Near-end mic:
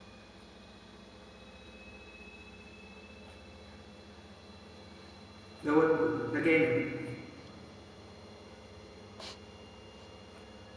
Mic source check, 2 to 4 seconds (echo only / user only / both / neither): neither